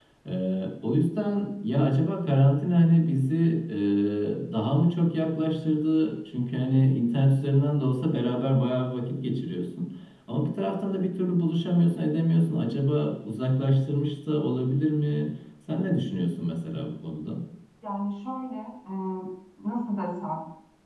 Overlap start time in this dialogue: none

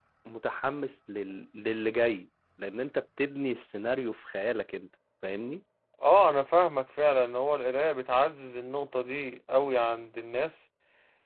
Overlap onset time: none

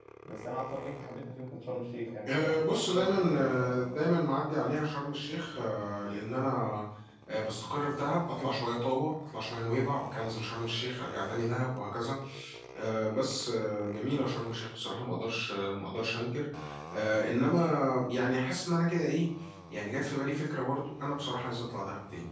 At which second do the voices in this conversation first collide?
2.3 s

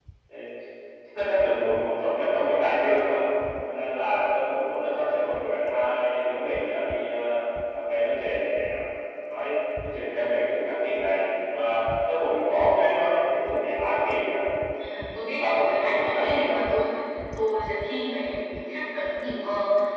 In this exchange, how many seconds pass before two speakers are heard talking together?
15.4 s

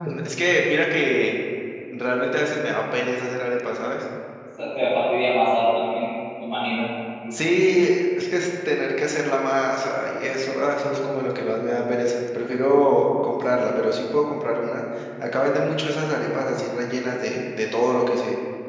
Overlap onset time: none

